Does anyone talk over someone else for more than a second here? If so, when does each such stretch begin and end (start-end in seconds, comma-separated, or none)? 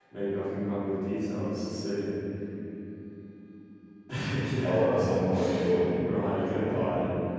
none